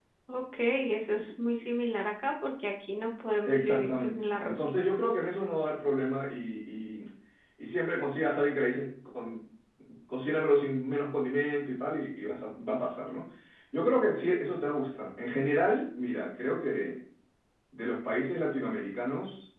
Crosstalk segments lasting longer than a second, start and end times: 3.5-4.7

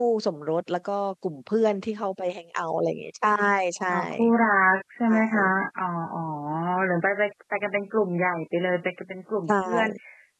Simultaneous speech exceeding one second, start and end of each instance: none

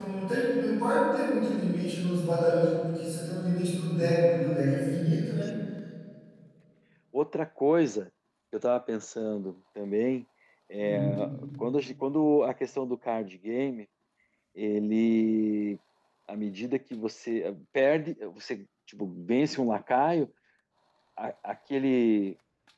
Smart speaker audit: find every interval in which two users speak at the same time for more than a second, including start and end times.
none

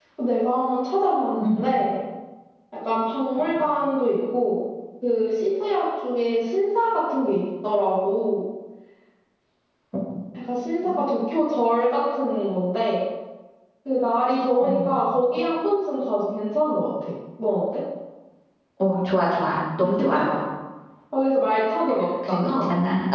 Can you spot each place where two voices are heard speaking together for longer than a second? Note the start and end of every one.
none

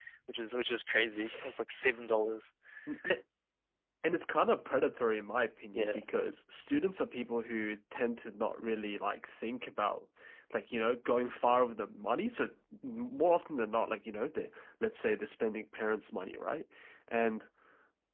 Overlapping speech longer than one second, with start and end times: none

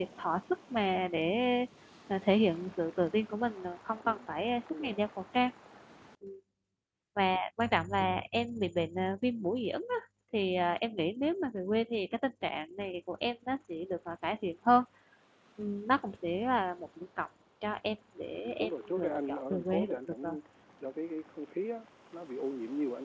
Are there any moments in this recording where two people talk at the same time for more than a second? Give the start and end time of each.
18.4-20.4

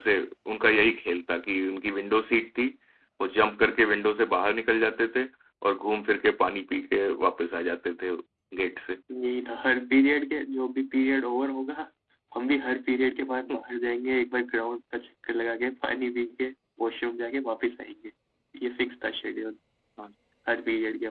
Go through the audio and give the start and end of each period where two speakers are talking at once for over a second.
none

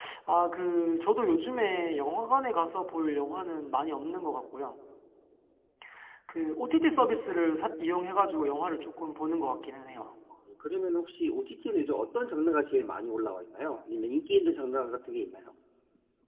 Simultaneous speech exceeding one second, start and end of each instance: none

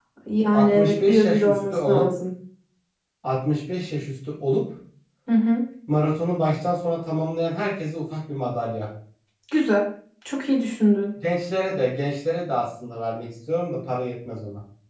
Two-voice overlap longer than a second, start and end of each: 0.5-2.0

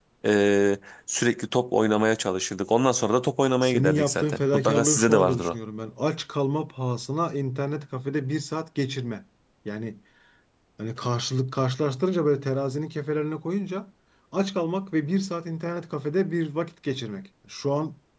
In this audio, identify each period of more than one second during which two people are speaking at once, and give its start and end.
3.6-5.5

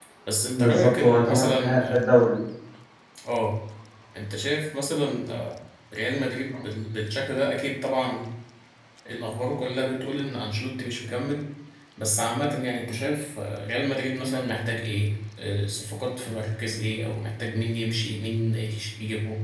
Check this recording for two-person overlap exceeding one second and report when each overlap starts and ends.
0.5-2.0

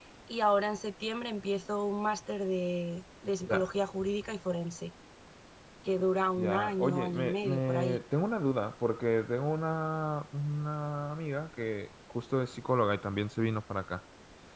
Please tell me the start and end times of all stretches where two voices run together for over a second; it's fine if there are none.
6.4-8.0

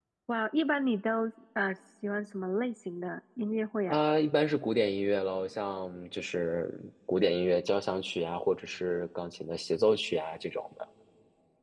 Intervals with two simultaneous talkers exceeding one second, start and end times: none

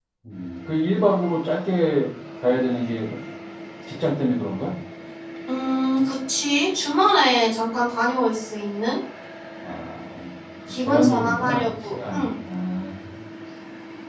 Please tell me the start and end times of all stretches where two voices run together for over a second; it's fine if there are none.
10.9-12.3

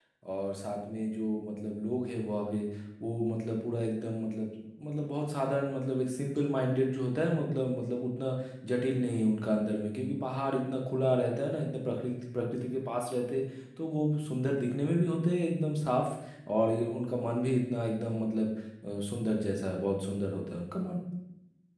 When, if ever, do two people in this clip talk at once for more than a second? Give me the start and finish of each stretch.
none

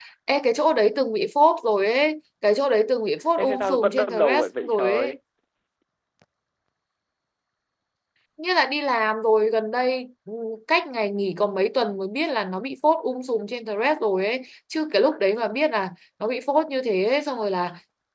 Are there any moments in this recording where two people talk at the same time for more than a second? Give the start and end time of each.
3.4-5.2

